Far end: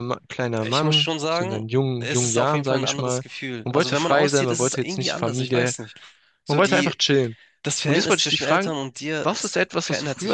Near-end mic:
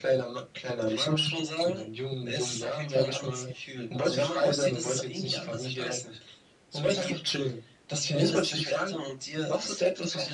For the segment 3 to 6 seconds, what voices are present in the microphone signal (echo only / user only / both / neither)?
echo only